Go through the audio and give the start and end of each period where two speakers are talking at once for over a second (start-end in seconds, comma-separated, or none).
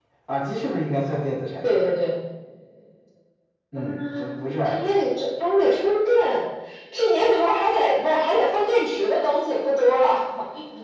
3.8-5.0